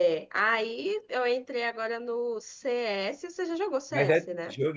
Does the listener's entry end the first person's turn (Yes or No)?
Yes